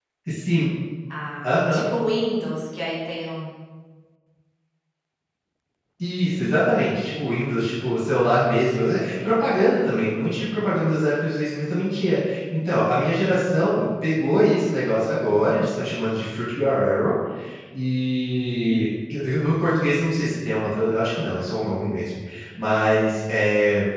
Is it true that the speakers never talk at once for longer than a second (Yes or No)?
Yes